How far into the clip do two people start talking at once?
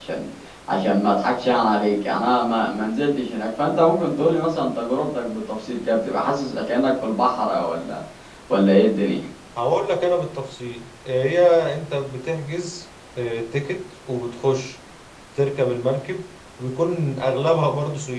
none

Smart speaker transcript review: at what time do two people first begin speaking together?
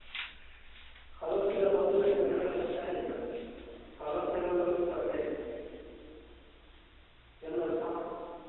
1.8 s

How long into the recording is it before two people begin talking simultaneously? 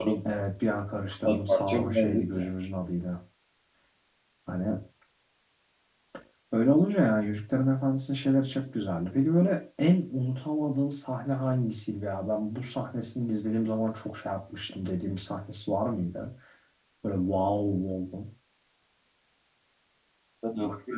1.1 s

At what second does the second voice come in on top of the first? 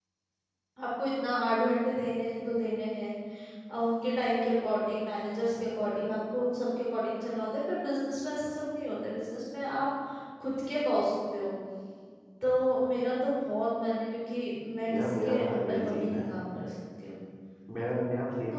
14.9 s

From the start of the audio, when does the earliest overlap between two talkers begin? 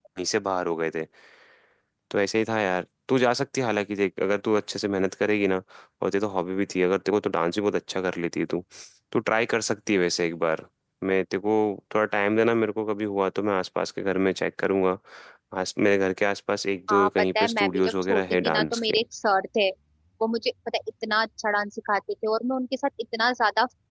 16.9 s

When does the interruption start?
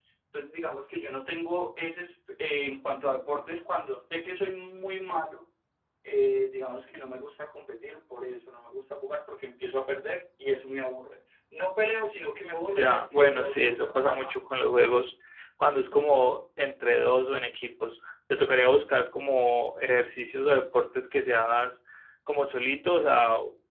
12.7 s

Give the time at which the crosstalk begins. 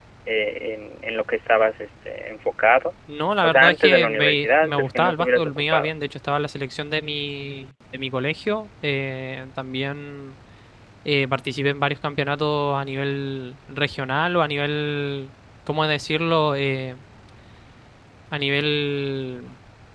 3.4 s

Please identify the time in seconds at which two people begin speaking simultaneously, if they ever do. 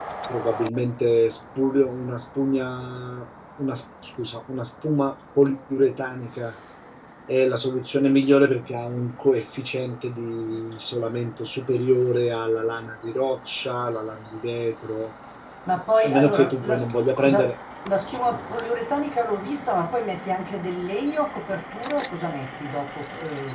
16.0 s

